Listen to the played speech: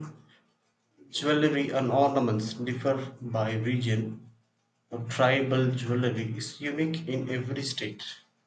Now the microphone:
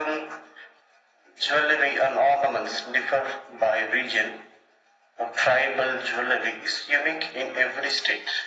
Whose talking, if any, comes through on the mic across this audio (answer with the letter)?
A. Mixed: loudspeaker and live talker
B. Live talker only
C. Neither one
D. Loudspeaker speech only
D